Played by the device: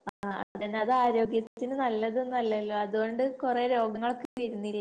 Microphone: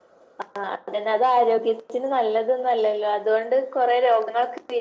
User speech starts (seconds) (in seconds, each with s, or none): none